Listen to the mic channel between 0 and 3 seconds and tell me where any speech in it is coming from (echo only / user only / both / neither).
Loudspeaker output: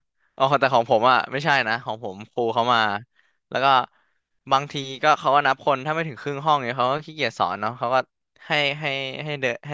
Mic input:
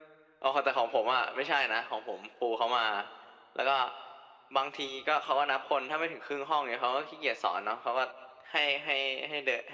echo only